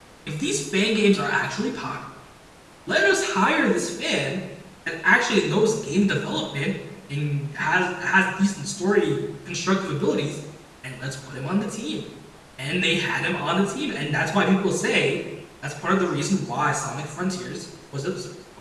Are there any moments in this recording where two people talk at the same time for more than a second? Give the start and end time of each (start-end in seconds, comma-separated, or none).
none